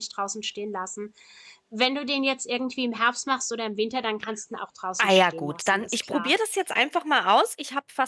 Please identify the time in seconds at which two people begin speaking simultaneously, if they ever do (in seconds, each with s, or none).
5.0 s